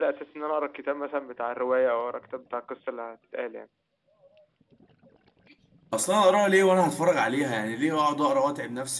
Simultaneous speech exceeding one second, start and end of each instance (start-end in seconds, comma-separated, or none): none